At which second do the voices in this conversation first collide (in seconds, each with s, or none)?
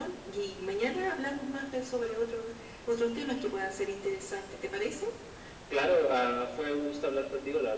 none